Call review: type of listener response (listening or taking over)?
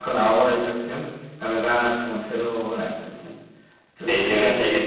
taking over